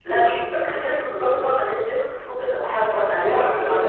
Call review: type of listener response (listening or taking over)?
taking over